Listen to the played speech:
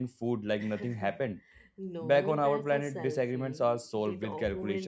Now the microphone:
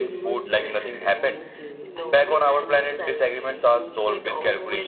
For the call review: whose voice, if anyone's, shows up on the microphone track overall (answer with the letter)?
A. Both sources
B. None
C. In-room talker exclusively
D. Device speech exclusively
A